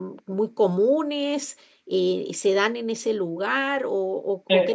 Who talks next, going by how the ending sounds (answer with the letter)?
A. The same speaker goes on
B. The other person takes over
B